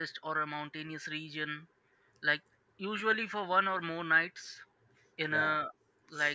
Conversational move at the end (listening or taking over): listening